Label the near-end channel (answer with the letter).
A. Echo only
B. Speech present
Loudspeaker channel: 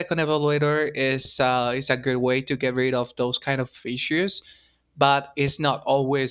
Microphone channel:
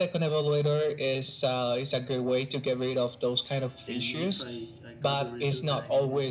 B